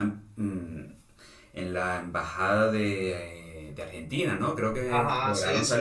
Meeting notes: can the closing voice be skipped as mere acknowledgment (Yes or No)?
No